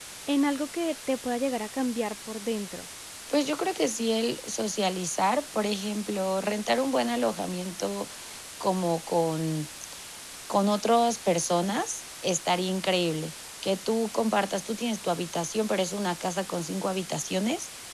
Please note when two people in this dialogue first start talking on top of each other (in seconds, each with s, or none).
none